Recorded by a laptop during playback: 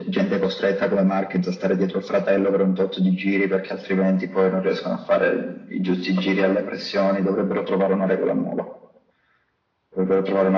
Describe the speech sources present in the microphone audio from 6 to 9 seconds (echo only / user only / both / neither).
echo only